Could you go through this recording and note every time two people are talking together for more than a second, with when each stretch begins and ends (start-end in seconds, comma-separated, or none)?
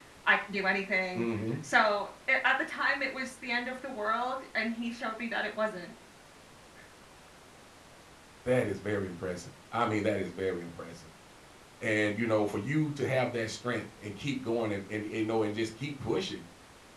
none